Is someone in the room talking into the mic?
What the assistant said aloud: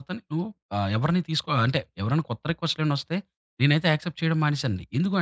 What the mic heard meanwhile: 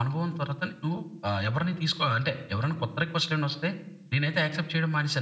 No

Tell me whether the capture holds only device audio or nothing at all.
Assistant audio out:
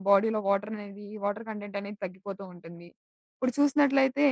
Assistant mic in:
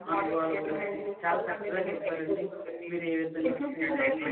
No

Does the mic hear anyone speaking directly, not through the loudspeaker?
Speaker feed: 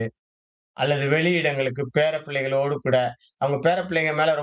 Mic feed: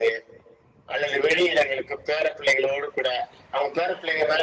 No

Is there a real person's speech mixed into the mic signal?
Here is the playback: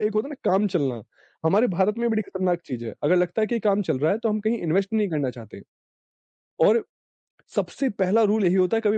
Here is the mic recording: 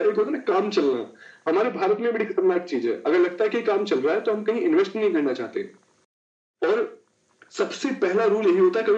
No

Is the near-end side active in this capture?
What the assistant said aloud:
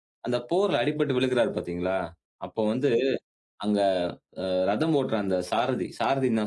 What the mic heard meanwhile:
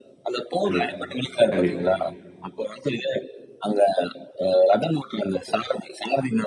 Yes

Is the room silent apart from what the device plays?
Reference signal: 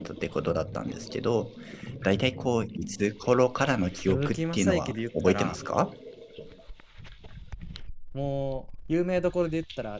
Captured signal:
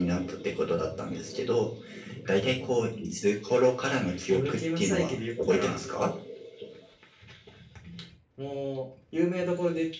Yes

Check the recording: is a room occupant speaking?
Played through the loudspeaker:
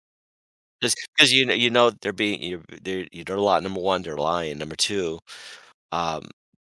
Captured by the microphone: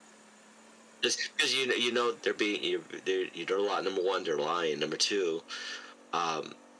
No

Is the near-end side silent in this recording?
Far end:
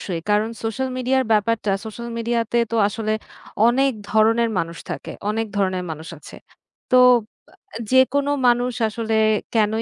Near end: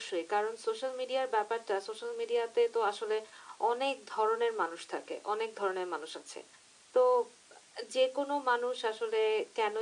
Yes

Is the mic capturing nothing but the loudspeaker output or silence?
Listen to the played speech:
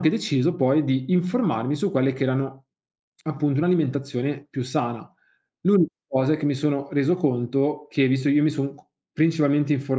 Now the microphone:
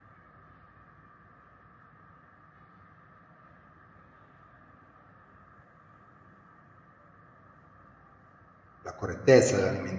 No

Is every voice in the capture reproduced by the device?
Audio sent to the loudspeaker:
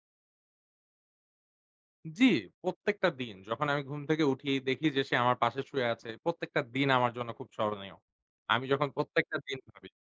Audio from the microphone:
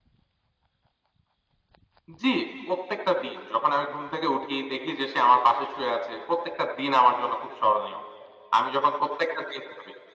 Yes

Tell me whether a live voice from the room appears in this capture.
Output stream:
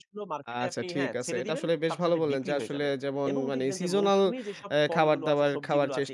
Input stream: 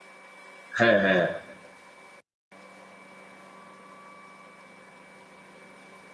Yes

